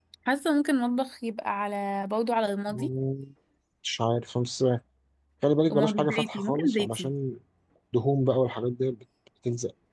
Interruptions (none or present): present